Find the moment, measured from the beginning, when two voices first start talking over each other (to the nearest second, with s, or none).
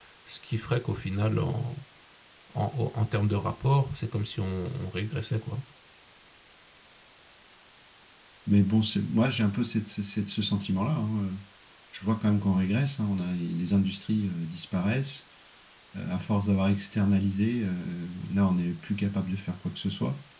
none